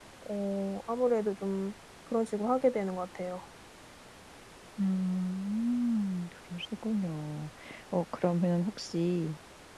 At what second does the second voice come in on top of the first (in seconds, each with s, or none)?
none